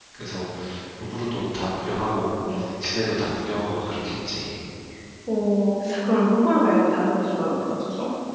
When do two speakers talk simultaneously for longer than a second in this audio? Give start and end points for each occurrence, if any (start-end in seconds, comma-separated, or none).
none